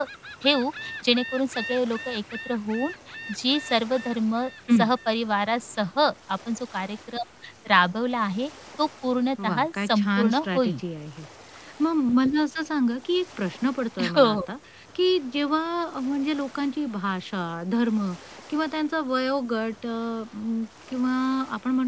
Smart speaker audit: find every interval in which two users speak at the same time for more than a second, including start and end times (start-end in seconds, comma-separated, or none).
9.4-10.8